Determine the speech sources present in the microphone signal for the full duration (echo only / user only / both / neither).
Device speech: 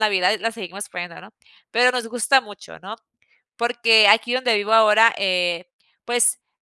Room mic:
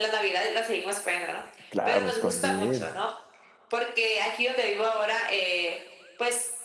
both